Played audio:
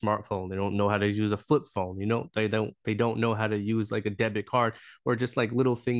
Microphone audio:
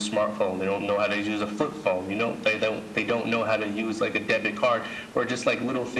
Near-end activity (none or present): none